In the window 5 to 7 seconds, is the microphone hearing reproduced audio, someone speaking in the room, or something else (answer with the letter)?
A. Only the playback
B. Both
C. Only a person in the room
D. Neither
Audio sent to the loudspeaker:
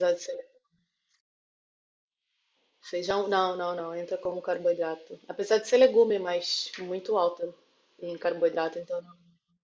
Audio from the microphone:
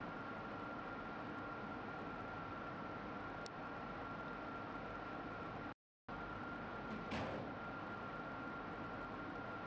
D